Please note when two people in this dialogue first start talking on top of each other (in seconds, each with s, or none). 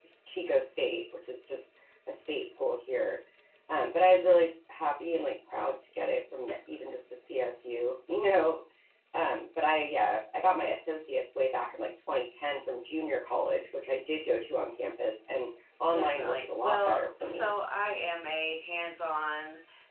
15.9 s